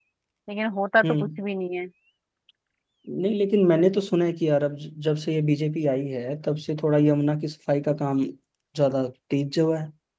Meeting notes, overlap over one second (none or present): none